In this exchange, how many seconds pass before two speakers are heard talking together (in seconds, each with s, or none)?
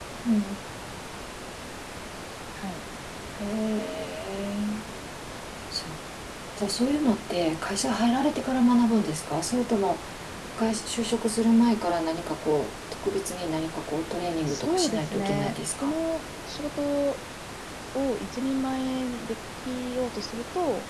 14.5 s